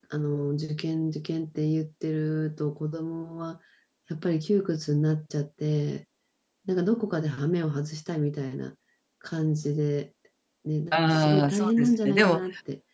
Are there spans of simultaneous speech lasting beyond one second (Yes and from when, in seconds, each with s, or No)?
Yes, from 10.9 s